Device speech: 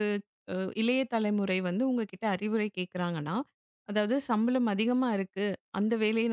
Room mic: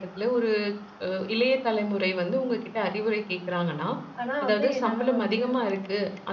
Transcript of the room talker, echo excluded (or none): ஆனா வந்து, என்னால வந்து